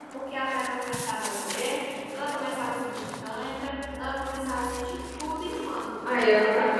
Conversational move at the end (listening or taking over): taking over